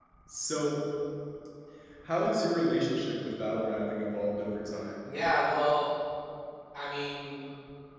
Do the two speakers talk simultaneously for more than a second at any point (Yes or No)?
No